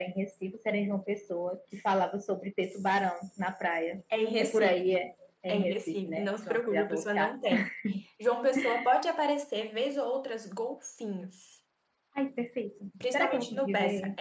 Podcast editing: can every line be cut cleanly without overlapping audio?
No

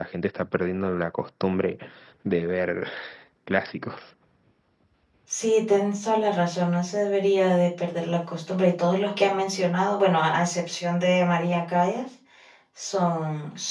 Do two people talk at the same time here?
No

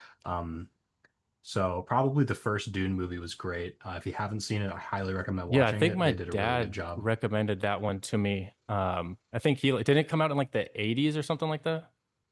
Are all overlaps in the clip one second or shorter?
No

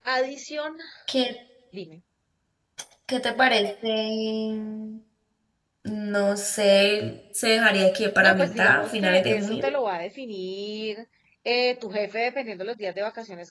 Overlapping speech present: Yes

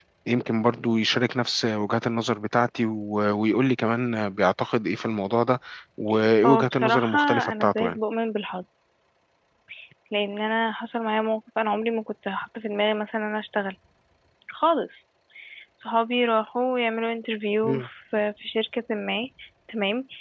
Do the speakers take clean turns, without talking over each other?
No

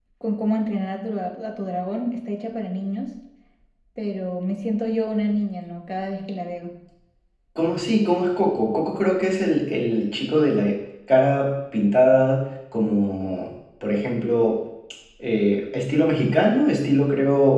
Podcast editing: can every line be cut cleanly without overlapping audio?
Yes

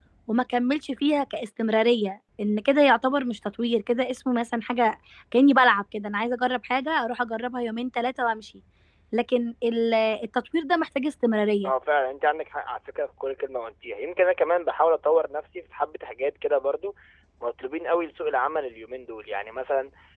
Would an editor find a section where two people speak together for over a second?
No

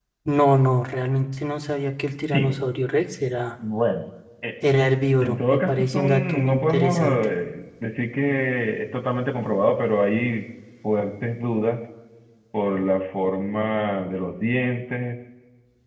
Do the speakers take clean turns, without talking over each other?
No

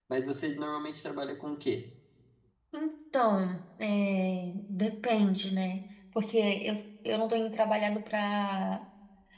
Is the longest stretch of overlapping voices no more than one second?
Yes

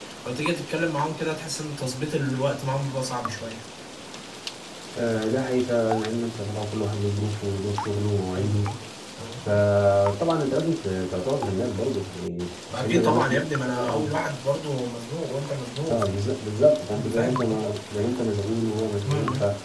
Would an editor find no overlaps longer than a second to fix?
No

